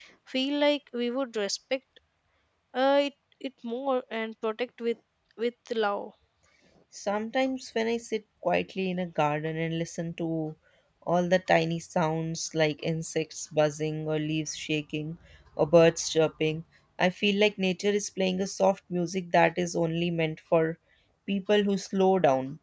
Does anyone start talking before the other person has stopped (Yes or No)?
No